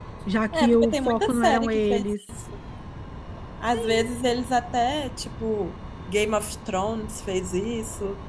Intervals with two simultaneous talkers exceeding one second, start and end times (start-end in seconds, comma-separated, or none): 0.5-2.4